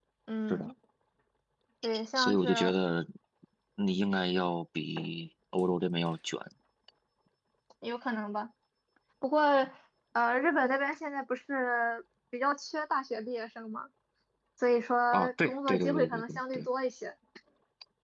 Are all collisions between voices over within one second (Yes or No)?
No